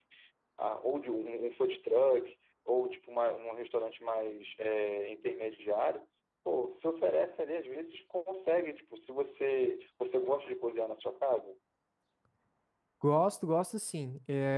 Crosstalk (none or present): none